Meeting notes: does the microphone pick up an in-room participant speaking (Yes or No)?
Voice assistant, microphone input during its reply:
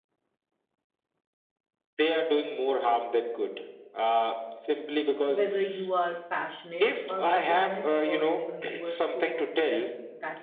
Yes